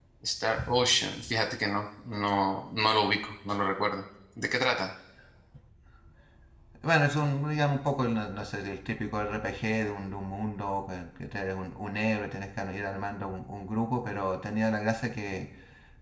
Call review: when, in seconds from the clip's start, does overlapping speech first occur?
none

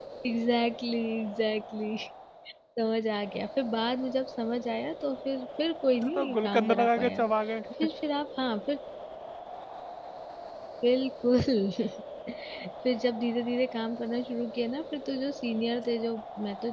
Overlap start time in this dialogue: 6.0 s

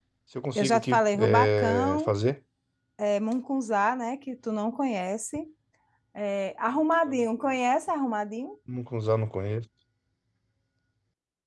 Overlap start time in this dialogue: 0.6 s

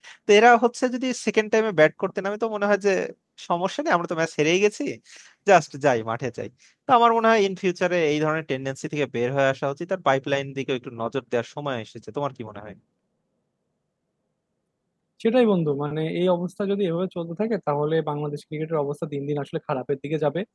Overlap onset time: none

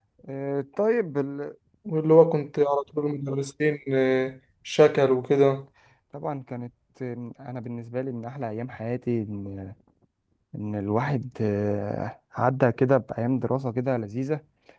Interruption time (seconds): none

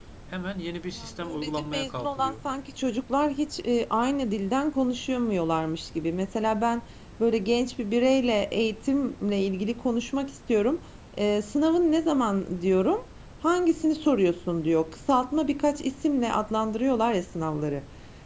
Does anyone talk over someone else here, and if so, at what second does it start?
1.0 s

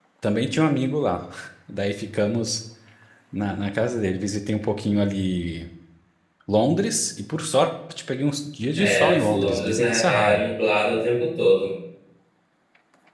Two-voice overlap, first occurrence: 8.8 s

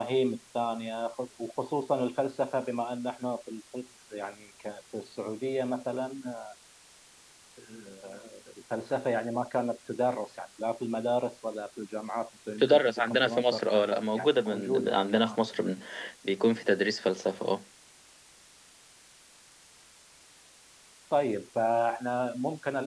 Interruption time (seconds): 12.6 s

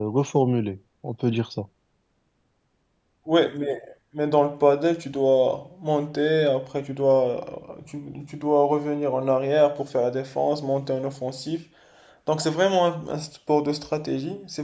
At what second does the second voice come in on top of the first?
none

